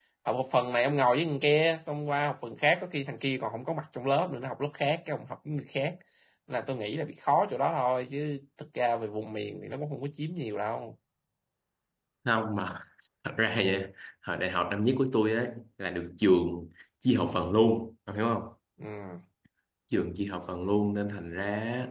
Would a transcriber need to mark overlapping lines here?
No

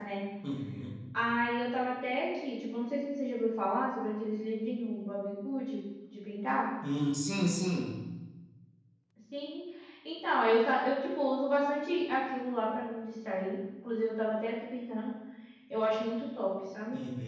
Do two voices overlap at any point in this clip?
No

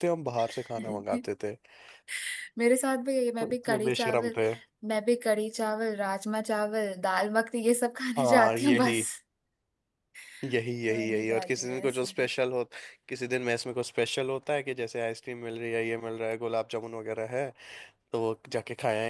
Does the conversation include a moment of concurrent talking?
Yes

